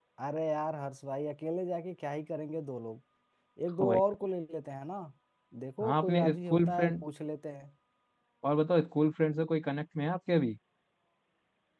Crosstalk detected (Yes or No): Yes